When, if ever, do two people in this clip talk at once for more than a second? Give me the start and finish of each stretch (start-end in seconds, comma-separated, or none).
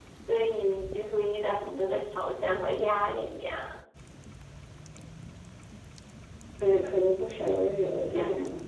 none